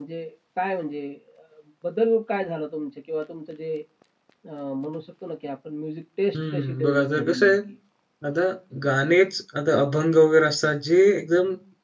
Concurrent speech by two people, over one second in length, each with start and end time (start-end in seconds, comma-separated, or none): 6.3-7.6